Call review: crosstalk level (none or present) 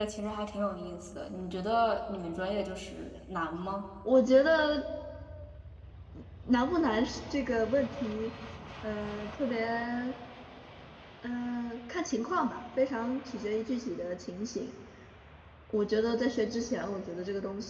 none